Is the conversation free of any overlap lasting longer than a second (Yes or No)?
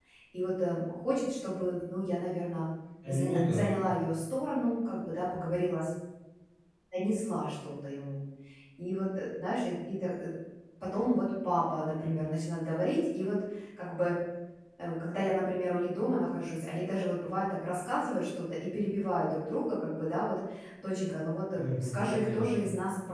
No